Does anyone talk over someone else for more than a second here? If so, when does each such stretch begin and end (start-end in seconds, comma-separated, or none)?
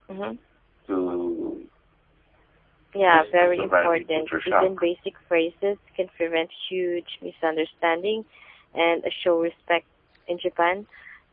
3.1-4.7